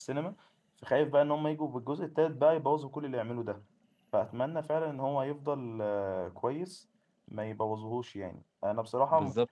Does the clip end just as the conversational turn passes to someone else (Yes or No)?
No